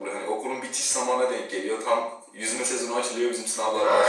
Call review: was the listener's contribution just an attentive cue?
No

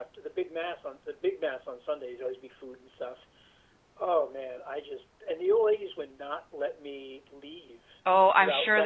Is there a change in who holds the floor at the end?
Yes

